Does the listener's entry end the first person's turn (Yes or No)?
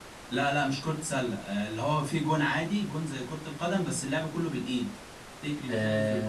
No